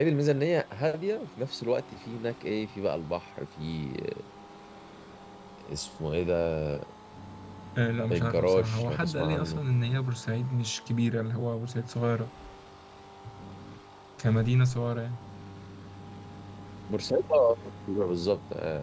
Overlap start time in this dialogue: 8.1 s

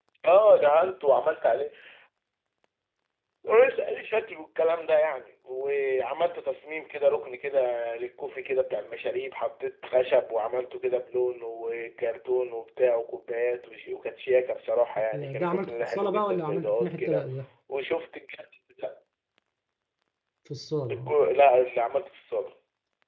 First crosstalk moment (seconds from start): 15.1 s

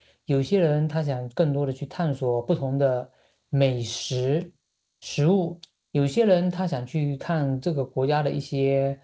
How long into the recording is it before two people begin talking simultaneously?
none

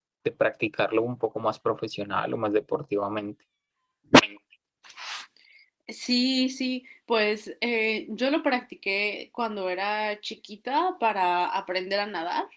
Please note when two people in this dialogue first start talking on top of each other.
none

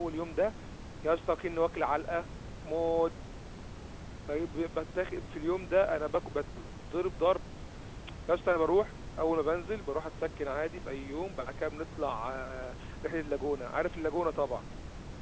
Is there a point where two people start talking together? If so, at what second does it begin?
none

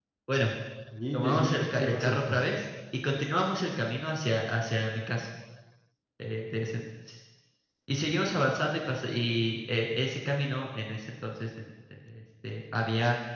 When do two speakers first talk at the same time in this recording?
1.1 s

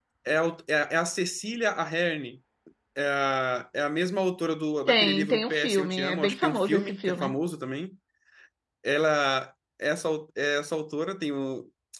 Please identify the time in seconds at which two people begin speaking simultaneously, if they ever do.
4.9 s

